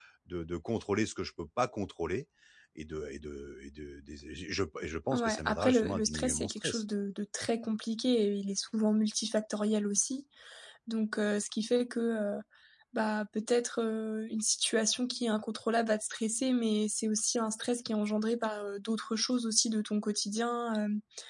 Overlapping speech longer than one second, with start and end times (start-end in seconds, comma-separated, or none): 5.1-6.8